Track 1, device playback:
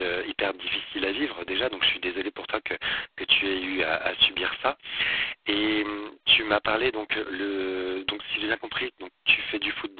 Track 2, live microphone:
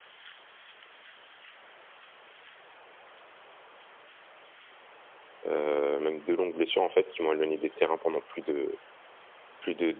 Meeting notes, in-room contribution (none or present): present